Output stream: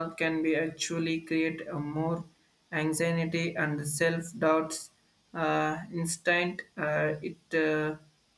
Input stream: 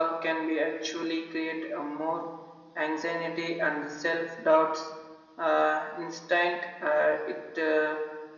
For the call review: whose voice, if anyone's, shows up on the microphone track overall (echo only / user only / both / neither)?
echo only